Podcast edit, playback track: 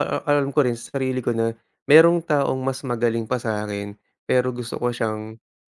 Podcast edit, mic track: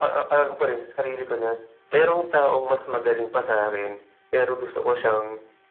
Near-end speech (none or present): none